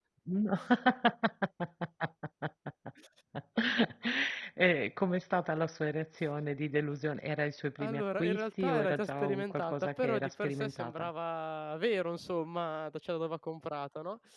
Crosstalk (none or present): present